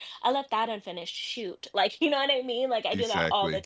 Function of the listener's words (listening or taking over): listening